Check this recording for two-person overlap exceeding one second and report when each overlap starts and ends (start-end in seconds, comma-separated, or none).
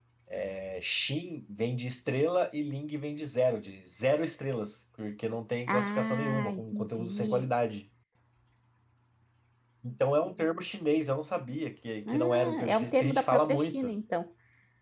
5.7-7.5, 12.1-13.9